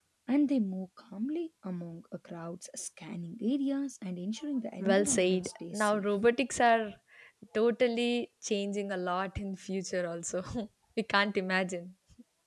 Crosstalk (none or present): present